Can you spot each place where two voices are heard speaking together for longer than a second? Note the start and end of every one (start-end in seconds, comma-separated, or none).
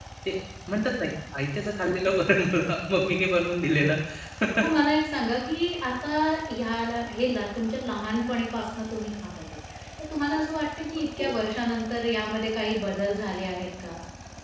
none